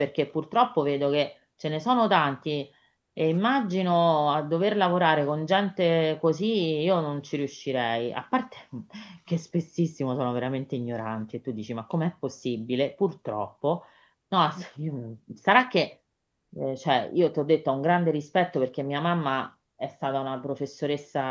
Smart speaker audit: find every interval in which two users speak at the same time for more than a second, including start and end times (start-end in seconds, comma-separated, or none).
none